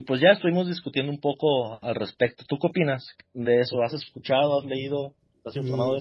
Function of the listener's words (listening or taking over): taking over